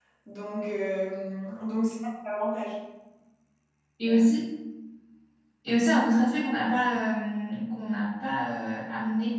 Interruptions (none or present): none